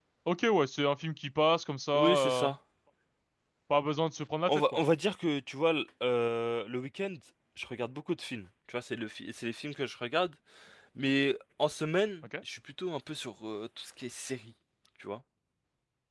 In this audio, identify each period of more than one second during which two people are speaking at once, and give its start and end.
none

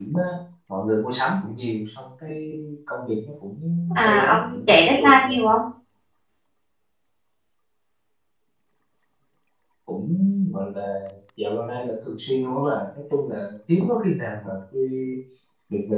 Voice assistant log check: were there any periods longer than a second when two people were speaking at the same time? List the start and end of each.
4.0-5.4

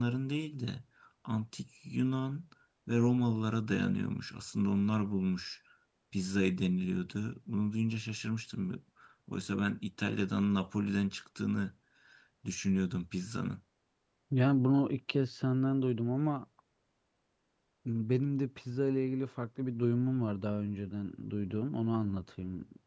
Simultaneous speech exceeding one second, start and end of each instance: none

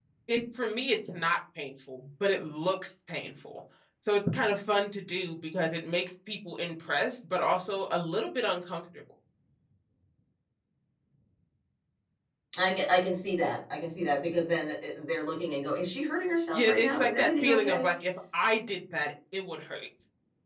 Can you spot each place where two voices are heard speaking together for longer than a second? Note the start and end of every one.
16.5-17.9

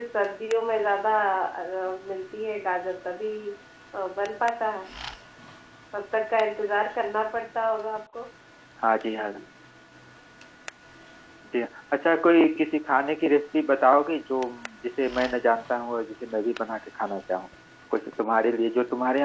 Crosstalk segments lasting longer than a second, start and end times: none

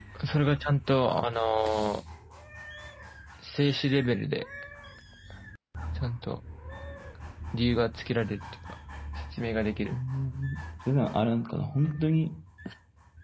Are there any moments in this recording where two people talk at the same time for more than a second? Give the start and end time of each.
none

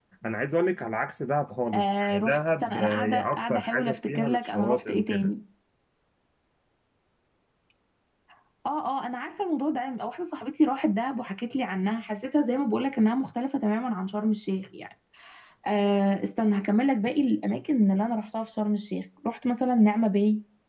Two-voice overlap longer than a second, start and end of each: 1.7-5.3

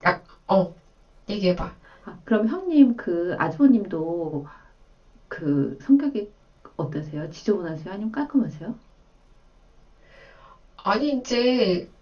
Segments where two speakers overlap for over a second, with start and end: none

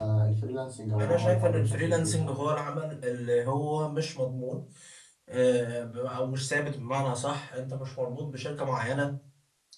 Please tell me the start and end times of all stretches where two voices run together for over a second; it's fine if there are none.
1.0-2.3

